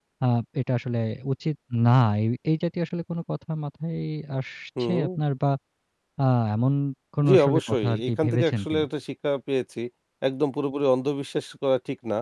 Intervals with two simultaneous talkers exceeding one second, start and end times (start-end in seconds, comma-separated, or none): 7.3-8.8